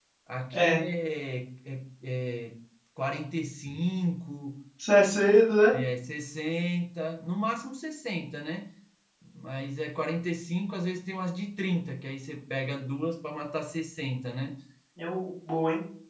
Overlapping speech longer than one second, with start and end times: none

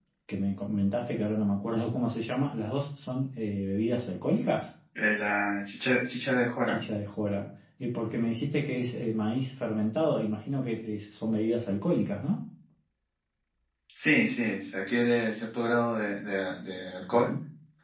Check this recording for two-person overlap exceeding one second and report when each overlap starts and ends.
none

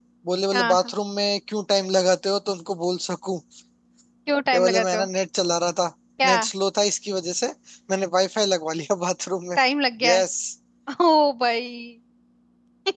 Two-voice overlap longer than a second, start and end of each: none

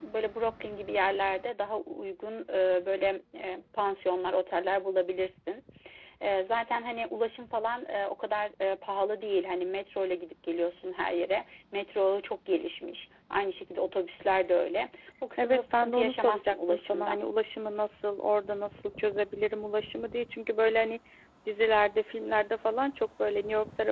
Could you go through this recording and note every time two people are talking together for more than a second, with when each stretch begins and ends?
15.4-17.2

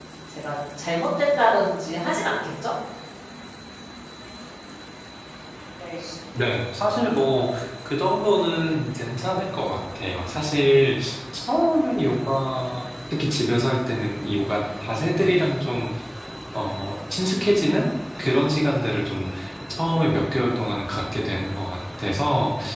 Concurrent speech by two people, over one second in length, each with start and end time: none

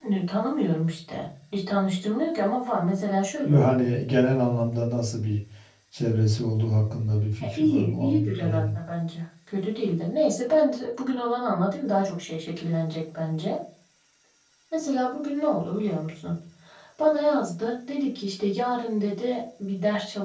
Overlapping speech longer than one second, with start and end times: 7.4-8.8

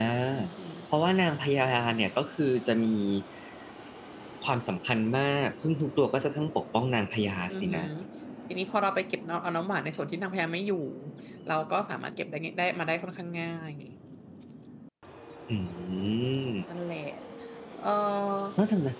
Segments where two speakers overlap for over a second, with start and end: none

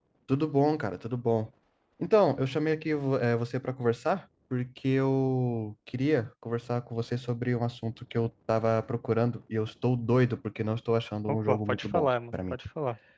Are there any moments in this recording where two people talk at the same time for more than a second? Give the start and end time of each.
11.3-12.6

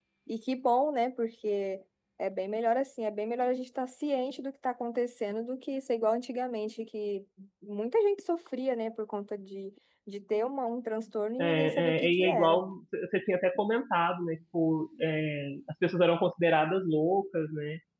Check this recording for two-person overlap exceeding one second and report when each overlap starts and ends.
11.4-12.6

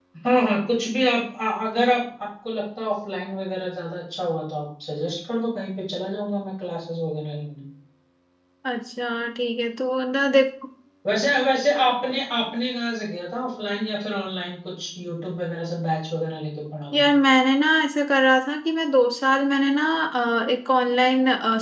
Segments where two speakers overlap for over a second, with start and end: none

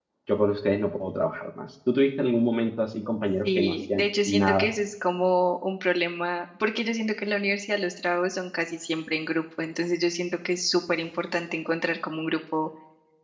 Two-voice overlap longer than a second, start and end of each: 3.5-4.7

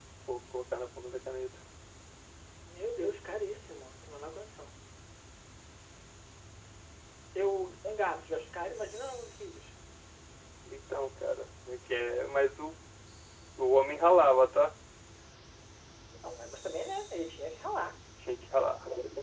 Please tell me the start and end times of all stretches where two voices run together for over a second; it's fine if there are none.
none

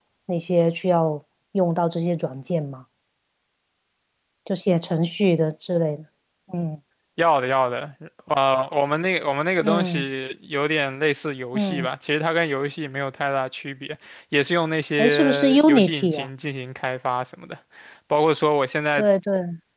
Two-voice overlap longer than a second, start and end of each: 15.0-16.3

